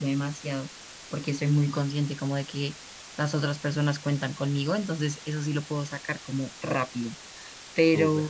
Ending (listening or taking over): listening